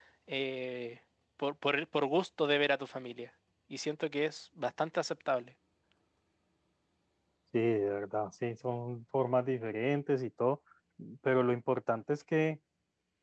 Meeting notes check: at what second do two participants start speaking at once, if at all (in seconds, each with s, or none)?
none